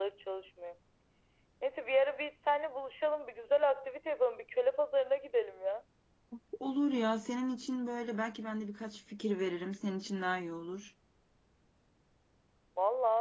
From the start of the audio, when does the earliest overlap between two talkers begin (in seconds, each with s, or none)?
none